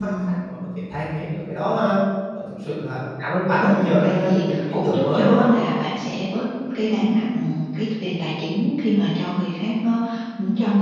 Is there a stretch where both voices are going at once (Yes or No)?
Yes